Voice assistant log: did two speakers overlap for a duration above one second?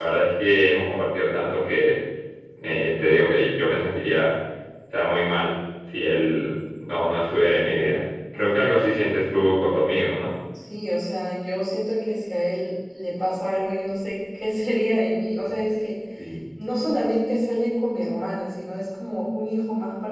No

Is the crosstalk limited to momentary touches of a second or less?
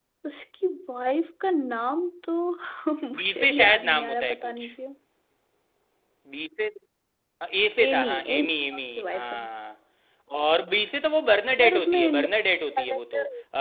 No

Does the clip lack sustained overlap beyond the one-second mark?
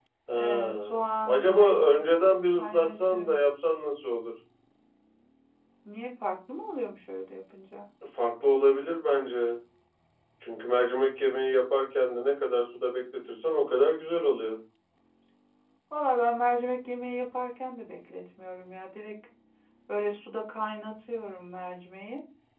No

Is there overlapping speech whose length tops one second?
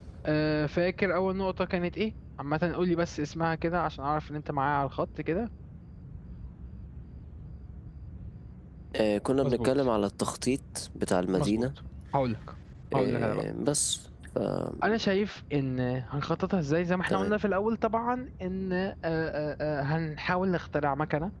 No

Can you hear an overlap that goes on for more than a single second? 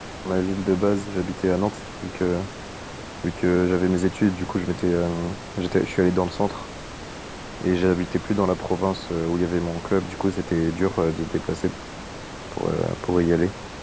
No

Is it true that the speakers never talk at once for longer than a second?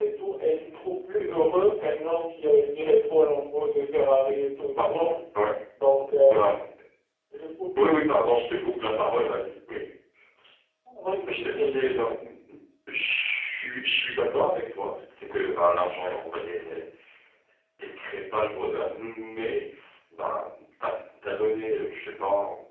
Yes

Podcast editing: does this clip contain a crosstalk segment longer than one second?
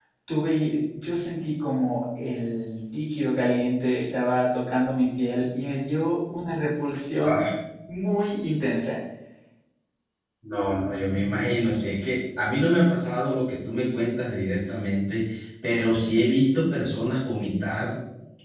No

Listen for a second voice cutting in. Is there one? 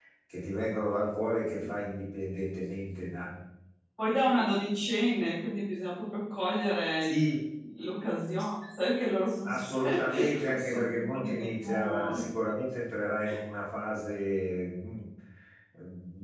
Yes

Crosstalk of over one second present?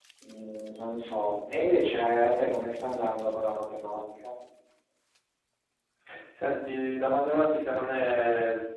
No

